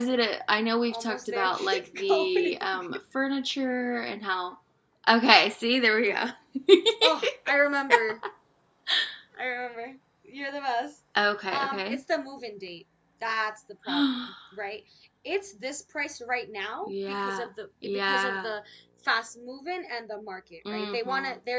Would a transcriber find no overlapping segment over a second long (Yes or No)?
No